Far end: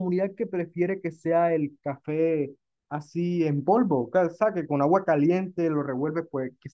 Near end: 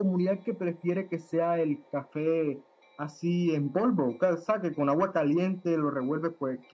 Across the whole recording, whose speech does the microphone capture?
echo only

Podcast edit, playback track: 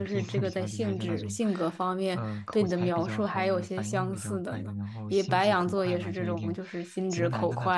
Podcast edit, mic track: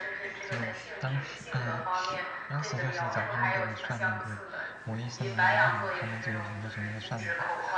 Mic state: both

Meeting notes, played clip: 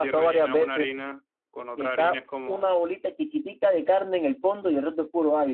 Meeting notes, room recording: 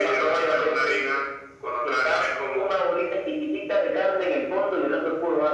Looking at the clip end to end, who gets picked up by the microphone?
echo only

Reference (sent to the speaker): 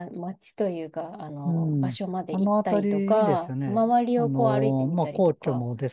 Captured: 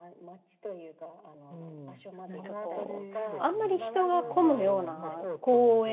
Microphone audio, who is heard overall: both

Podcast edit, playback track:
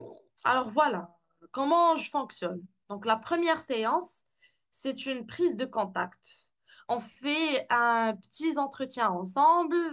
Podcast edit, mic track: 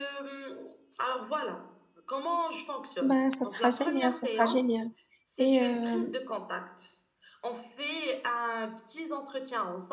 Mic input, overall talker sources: both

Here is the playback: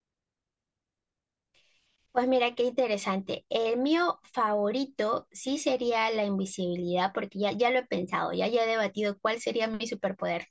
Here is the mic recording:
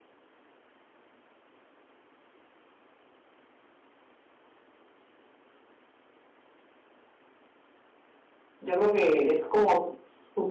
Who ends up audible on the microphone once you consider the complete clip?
user only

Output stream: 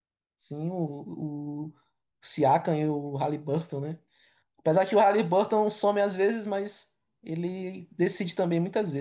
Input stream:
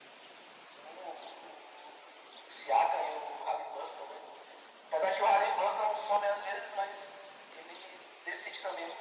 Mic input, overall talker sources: echo only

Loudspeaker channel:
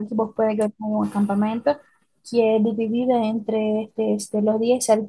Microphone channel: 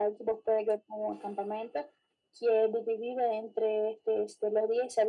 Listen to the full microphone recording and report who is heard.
echo only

